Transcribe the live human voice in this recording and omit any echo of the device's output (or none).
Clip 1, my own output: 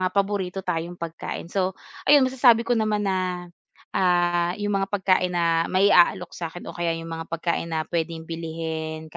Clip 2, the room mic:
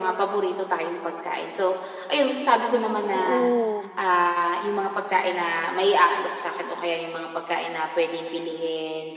Oo.